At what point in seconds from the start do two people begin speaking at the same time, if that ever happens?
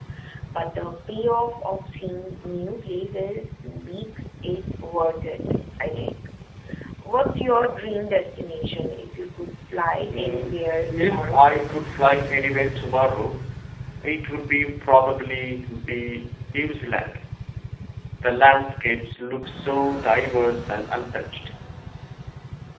10.0 s

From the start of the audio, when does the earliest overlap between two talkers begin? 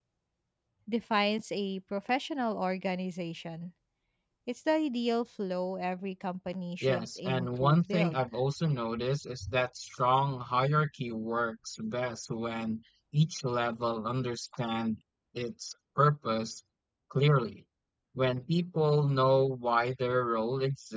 6.8 s

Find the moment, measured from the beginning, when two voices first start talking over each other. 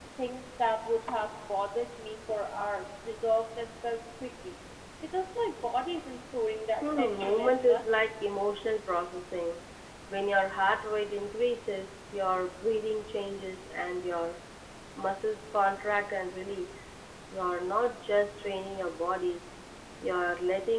6.8 s

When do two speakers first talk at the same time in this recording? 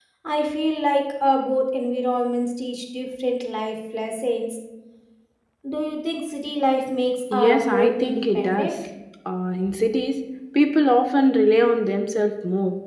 7.3 s

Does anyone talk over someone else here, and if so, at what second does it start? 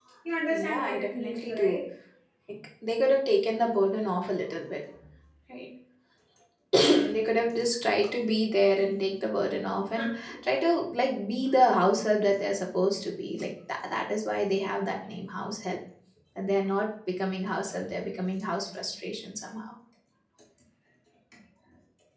0.5 s

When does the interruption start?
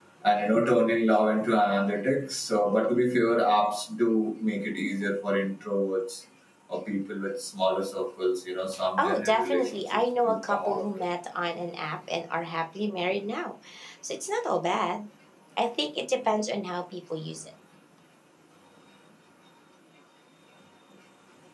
9.0 s

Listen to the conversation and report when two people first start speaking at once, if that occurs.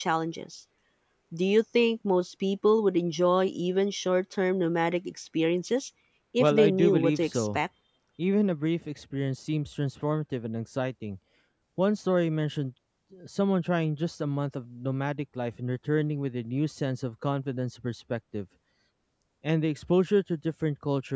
6.4 s

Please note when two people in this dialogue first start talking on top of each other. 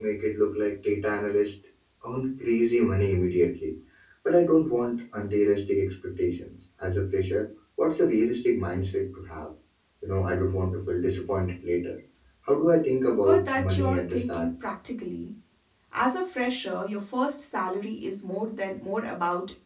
13.2 s

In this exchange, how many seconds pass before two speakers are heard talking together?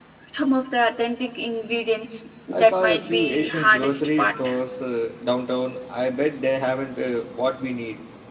2.5 s

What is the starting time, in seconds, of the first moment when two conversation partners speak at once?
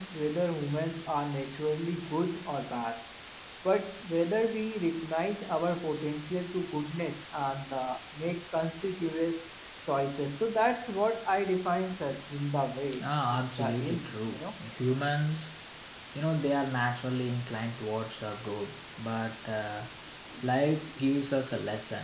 12.9 s

